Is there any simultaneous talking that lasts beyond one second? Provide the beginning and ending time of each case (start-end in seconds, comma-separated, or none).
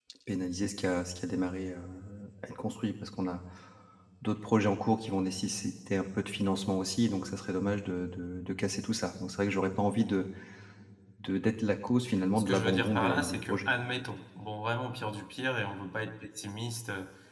12.4-13.7